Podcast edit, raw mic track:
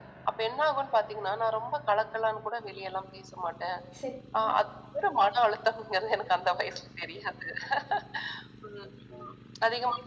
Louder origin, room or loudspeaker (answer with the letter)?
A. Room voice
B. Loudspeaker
B